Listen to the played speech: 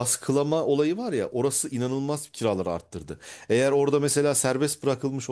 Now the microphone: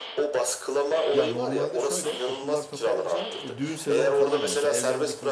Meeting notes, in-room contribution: present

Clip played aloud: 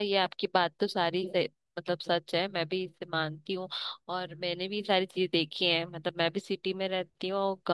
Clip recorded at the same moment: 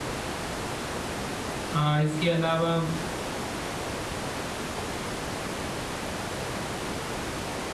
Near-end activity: present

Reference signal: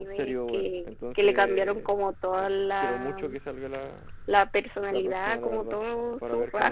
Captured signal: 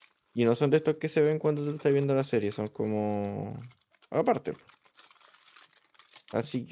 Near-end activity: present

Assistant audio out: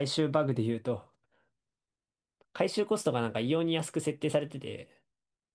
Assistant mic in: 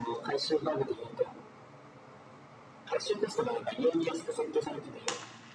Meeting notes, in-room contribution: none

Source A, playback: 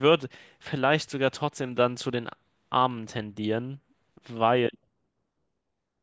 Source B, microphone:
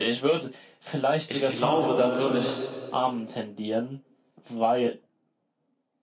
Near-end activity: present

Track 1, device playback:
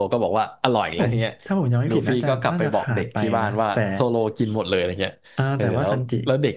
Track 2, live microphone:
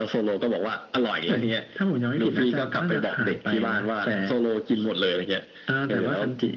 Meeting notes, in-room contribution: none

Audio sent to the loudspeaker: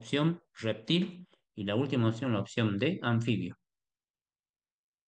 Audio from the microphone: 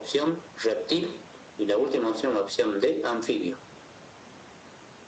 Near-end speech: none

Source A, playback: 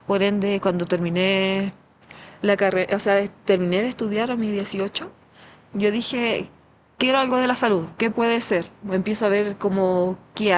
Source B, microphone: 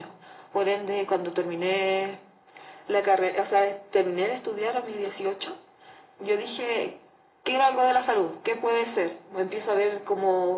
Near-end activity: none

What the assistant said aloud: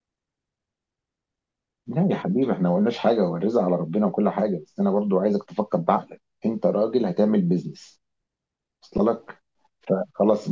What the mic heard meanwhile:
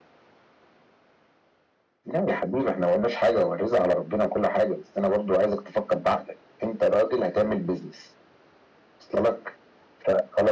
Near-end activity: none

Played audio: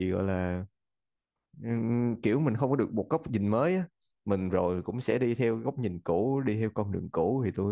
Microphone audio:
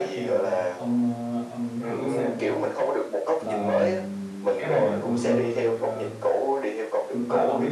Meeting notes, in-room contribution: present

